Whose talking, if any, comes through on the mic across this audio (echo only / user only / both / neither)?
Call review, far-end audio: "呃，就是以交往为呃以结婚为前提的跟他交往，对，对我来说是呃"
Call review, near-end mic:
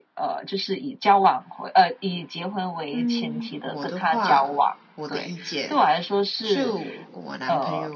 both